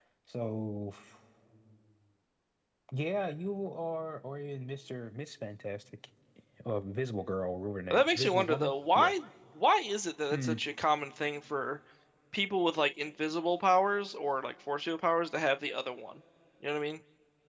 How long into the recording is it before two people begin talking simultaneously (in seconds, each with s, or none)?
7.9 s